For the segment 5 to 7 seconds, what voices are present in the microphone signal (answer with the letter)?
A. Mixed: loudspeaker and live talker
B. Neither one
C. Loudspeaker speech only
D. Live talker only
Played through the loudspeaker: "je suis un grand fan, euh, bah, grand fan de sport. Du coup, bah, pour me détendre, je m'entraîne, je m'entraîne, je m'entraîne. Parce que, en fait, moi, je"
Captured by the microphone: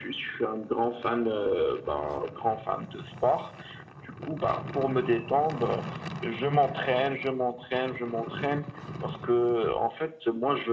C